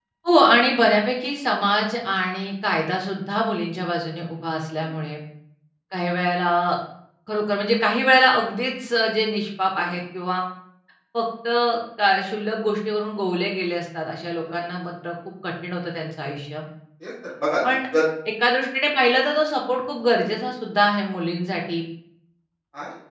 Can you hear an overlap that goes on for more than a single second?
No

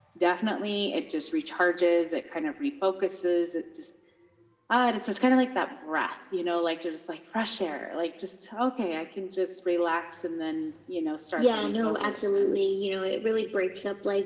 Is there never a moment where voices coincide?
No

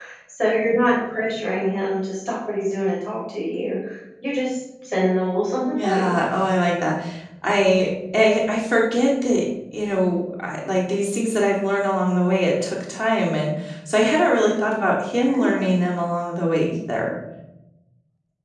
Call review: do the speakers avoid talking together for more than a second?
Yes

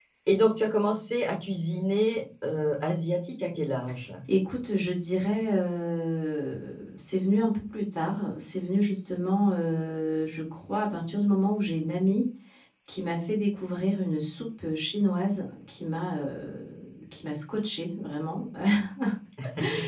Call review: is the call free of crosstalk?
Yes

